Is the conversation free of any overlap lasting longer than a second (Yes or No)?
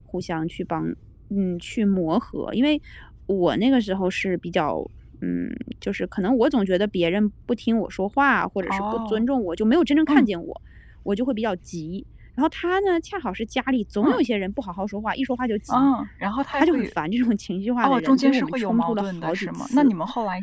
No